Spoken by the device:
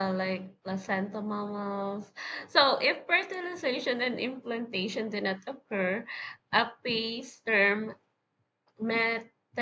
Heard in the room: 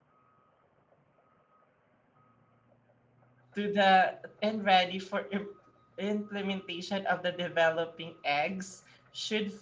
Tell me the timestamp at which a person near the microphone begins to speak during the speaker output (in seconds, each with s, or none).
3.5 s